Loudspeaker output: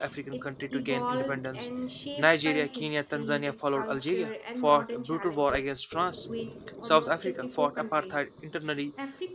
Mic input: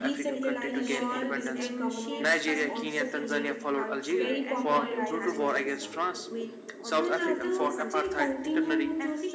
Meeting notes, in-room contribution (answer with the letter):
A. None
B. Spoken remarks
B